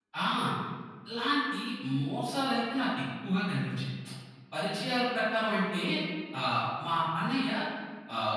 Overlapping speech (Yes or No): No